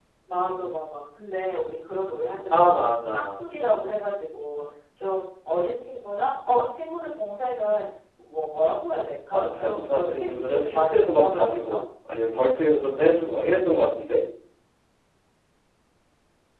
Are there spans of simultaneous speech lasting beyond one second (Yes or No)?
Yes